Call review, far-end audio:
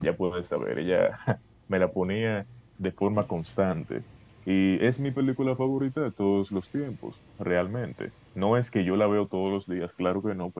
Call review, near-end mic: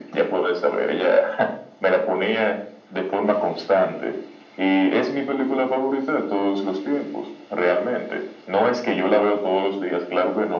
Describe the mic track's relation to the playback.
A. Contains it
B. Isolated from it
A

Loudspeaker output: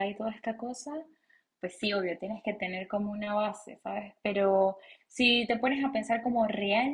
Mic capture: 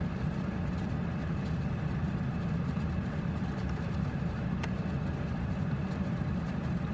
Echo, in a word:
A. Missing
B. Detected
A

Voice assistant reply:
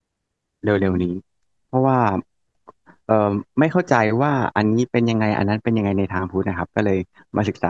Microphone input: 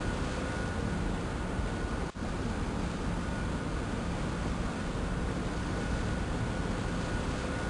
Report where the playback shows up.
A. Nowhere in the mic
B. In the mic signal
A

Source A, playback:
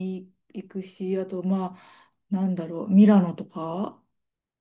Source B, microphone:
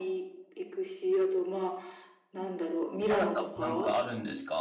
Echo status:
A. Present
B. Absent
A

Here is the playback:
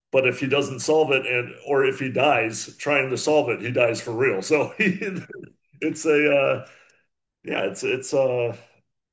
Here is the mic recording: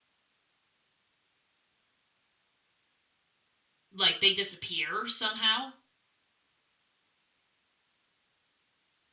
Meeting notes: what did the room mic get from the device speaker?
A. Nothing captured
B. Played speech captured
A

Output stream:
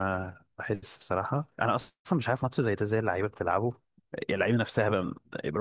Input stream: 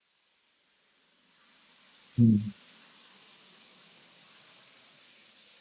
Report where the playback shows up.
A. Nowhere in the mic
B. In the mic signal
A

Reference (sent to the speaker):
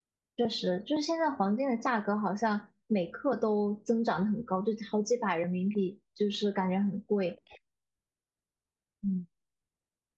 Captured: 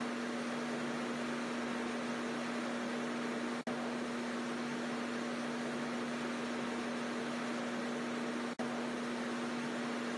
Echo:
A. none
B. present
A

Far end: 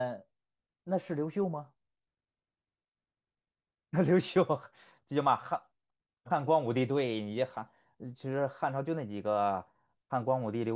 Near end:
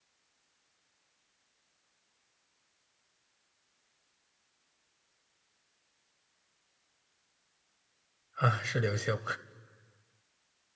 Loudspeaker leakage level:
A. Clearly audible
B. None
B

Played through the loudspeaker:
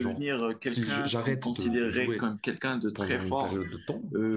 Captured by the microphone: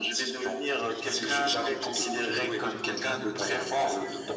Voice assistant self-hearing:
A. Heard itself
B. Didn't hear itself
A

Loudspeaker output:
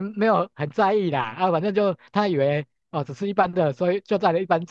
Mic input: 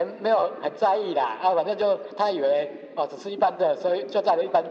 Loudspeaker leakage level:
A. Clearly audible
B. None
A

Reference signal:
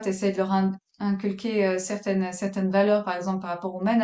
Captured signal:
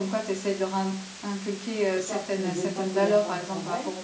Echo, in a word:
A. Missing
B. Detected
B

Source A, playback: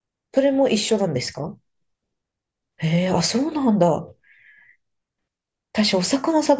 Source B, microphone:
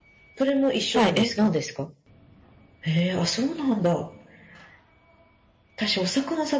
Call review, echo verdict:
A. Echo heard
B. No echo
A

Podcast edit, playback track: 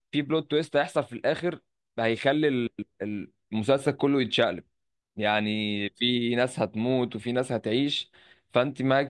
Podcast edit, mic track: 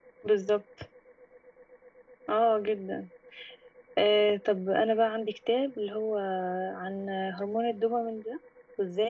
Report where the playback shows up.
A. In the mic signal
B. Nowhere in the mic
B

